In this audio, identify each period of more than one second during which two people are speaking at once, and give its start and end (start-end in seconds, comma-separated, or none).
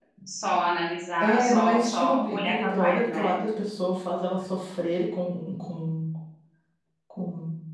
1.2-3.3